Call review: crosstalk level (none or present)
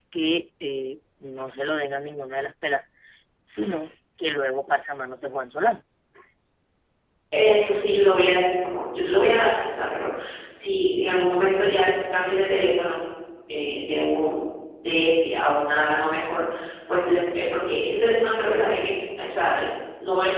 none